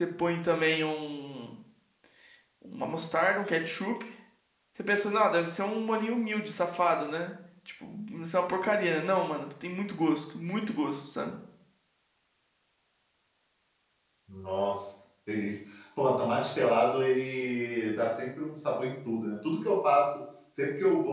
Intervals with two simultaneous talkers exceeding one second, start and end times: none

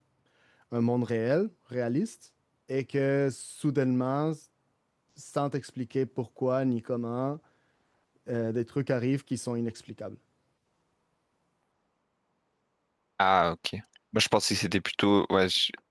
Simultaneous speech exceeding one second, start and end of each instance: none

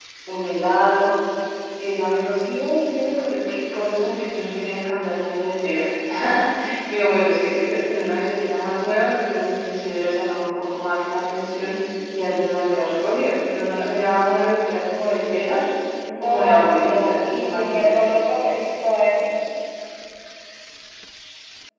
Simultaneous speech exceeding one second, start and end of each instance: 16.2-17.9

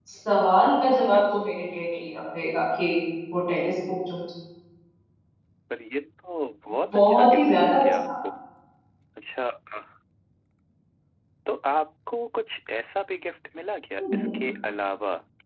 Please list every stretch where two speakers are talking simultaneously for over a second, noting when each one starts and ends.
6.9-8.1

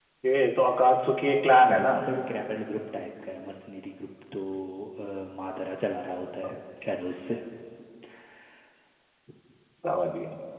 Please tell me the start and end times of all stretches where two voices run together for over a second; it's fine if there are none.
none

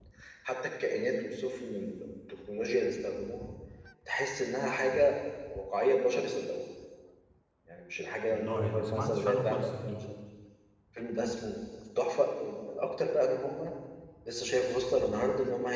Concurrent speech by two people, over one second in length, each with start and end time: 8.3-10.1

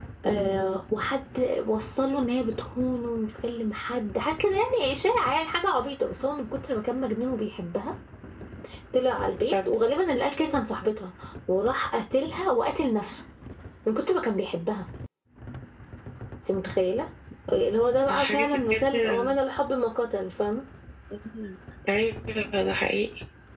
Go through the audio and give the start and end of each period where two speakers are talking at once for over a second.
18.1-19.4

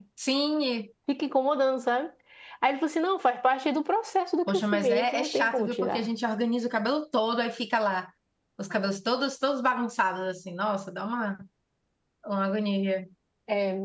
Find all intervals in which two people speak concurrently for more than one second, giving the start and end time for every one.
4.5-6.1

